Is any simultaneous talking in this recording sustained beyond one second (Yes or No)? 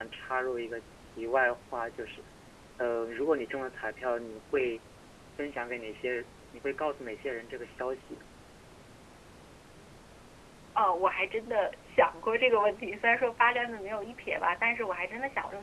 No